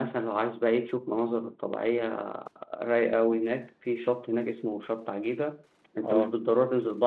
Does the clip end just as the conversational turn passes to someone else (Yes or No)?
No